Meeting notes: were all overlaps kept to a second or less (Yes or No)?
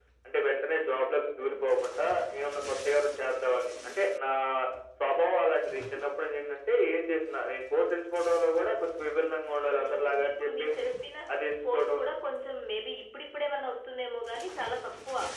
No